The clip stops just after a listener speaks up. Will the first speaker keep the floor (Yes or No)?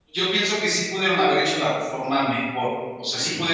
Yes